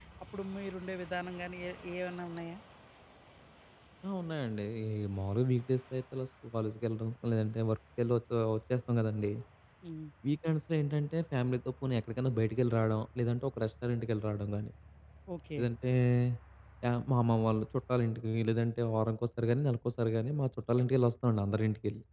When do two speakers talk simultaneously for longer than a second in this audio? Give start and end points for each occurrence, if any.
none

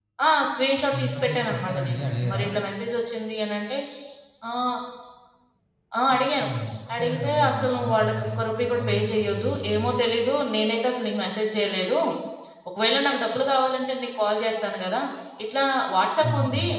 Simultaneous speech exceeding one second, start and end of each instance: 0.9-2.4, 6.9-9.9

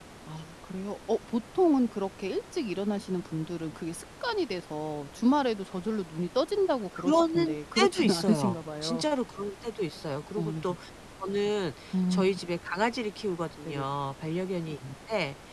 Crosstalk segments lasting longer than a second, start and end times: 7.0-9.0

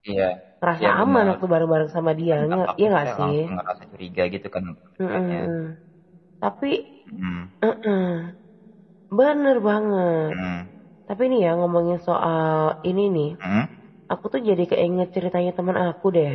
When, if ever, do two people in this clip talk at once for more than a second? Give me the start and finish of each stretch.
2.3-3.5

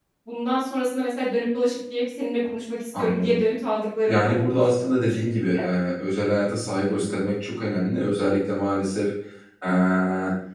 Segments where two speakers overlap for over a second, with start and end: 4.1-5.6

